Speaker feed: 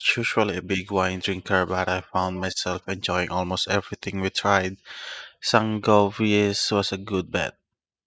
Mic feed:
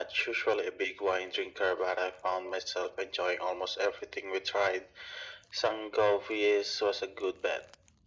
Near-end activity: none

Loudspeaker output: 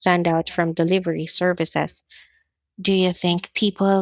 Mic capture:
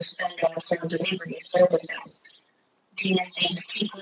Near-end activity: none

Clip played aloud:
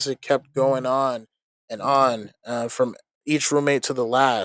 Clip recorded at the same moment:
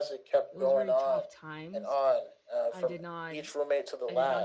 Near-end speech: present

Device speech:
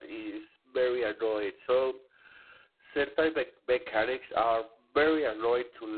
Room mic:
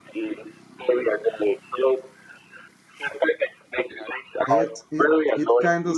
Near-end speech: present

